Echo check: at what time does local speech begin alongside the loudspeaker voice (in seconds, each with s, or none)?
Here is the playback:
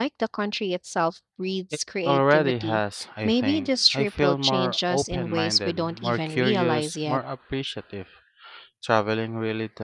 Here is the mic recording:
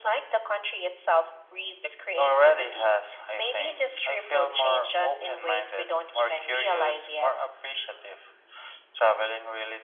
none